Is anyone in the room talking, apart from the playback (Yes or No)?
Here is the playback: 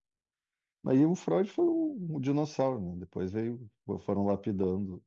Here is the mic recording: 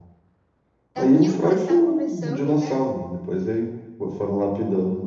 Yes